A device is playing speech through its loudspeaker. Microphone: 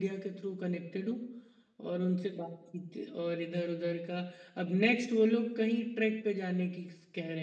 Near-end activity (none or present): none